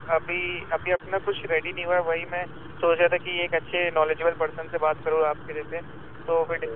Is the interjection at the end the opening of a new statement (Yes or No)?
No